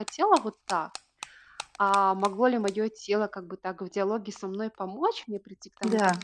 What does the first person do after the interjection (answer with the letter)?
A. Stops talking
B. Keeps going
B